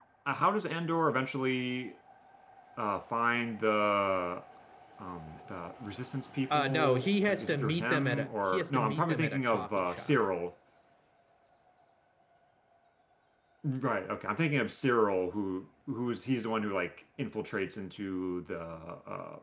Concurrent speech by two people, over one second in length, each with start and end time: 6.5-10.1

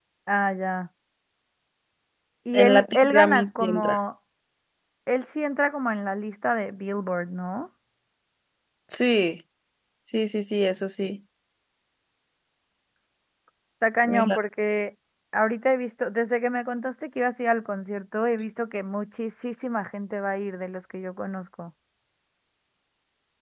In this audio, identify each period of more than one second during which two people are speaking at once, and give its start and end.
2.5-4.0

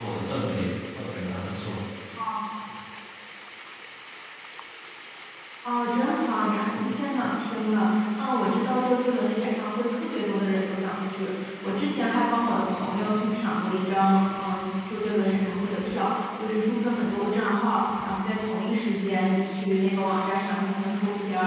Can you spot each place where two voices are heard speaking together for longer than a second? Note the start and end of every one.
none

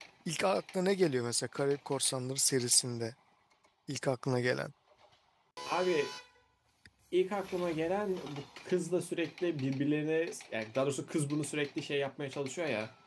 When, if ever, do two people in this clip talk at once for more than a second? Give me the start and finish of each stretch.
none

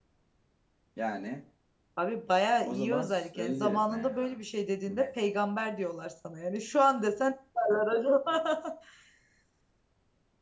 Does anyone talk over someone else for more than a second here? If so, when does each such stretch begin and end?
2.7-4.4

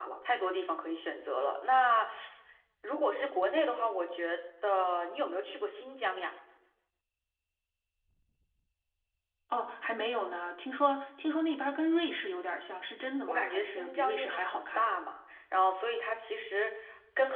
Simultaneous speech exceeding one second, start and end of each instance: 13.3-14.8

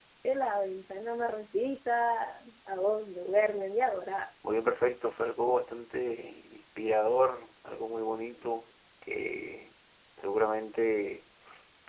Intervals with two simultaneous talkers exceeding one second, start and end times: none

